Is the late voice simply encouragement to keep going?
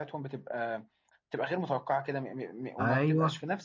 Yes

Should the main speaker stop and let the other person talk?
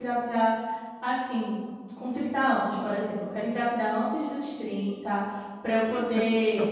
No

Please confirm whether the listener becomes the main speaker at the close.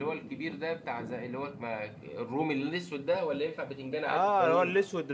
Yes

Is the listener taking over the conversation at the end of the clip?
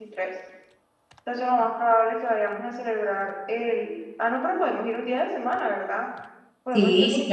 Yes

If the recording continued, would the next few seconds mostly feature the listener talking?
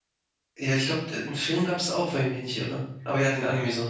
Yes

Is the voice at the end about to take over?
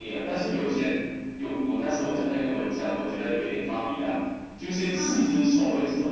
No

